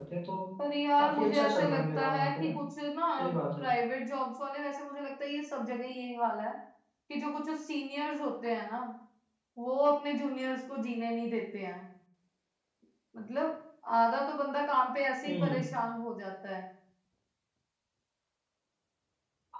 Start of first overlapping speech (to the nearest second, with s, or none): 1 s